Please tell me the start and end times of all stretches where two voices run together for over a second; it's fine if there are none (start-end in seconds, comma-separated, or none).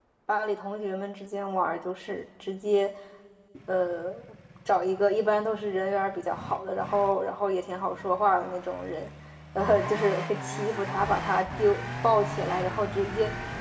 none